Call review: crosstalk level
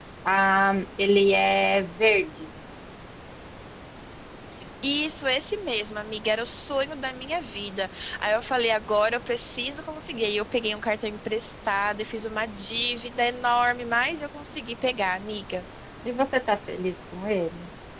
none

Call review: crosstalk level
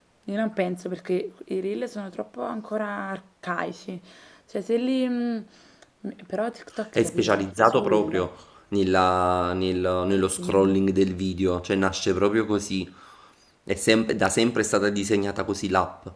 present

